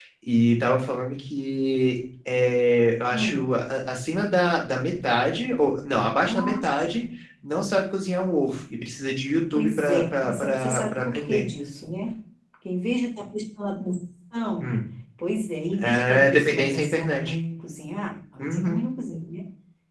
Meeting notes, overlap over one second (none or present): present